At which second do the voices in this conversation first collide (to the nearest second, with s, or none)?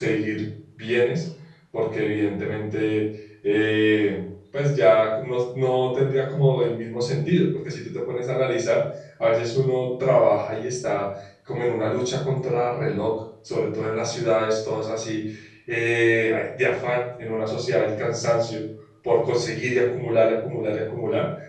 none